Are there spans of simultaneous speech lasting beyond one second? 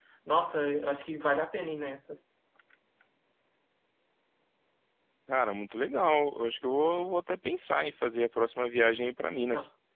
No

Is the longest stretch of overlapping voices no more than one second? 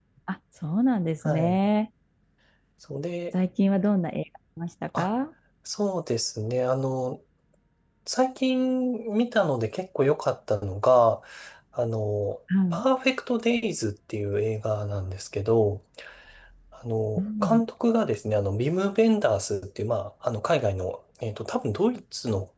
Yes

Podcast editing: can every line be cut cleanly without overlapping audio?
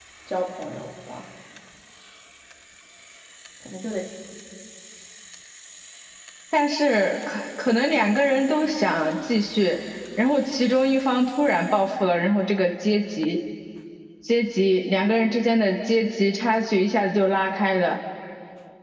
Yes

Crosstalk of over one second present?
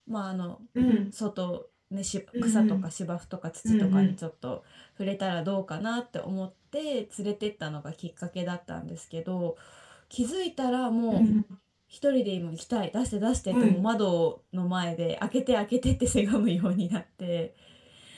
No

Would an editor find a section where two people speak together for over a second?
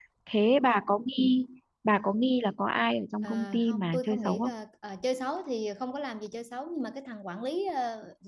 Yes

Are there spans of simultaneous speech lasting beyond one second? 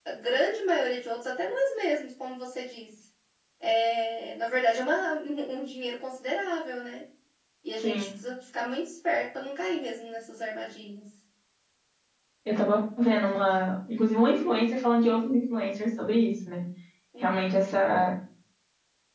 No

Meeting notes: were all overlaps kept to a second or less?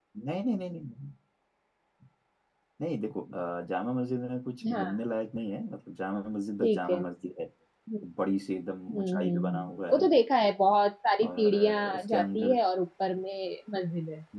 No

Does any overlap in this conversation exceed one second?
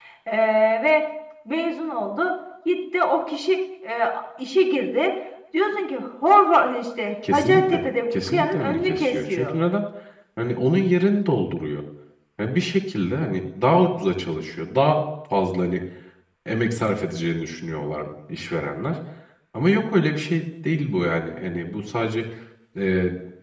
Yes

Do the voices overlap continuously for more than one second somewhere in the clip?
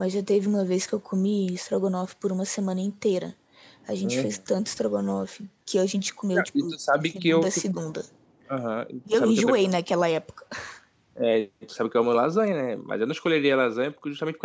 Yes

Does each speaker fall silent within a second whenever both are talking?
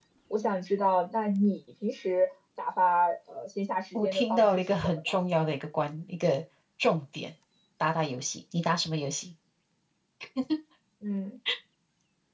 No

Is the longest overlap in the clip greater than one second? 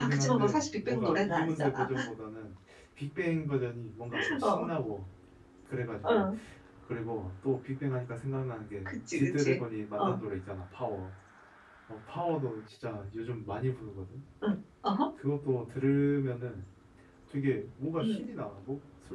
Yes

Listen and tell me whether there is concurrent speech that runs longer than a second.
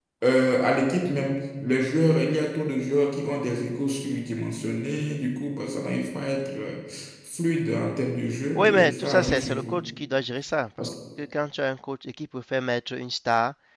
Yes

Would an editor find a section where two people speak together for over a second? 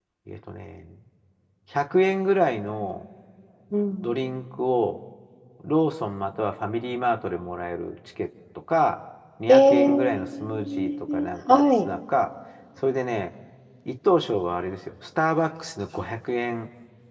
Yes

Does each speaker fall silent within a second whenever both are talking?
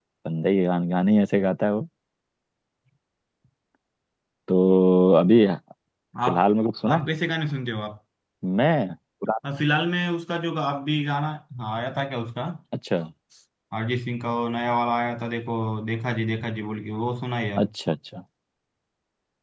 Yes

